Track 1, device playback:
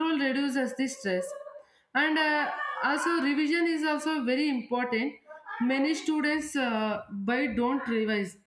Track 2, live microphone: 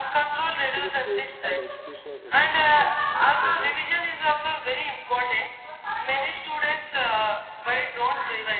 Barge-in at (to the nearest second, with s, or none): 1 s